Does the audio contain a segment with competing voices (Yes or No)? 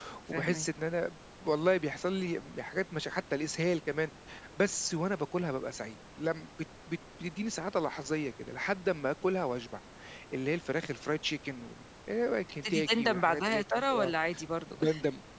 Yes